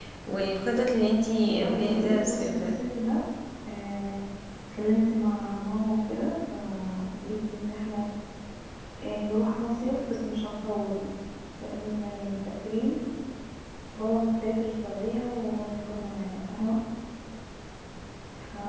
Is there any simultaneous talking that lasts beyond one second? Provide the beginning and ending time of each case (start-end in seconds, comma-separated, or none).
1.5-2.8